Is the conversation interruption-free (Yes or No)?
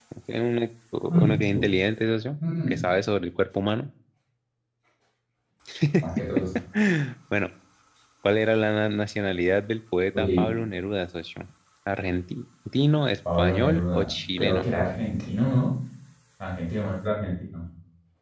No